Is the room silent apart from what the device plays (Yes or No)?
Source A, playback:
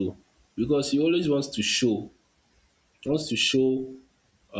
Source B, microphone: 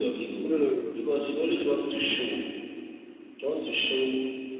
No